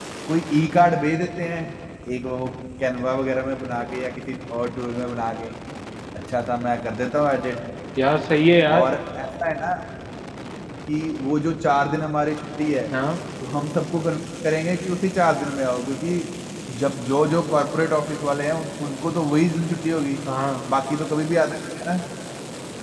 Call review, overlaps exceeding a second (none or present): none